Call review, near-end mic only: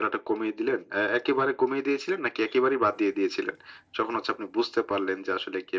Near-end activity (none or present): none